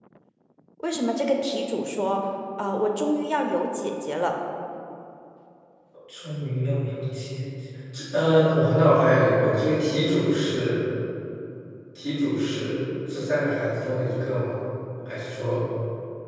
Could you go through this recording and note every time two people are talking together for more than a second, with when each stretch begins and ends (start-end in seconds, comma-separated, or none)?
none